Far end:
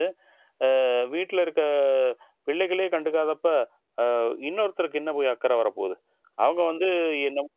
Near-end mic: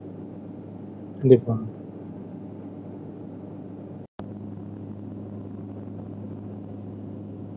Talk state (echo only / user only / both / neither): user only